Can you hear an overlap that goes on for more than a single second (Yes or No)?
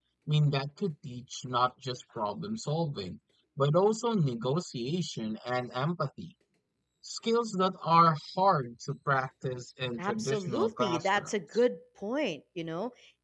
Yes